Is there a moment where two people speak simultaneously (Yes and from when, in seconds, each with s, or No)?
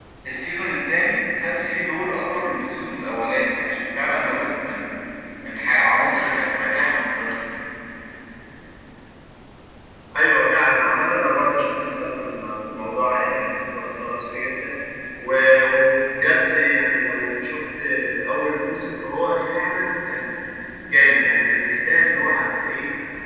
No